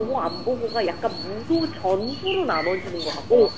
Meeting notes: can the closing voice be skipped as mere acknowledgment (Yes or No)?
No